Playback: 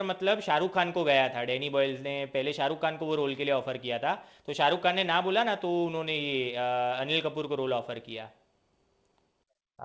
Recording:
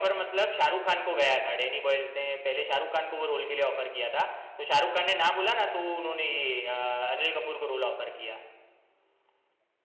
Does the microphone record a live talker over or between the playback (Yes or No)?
No